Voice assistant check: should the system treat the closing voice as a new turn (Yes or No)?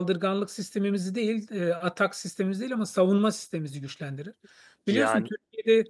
No